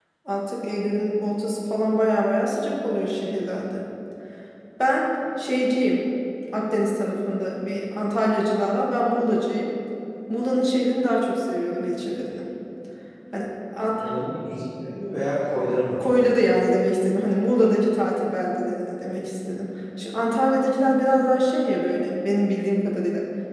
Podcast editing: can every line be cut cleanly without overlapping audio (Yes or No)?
Yes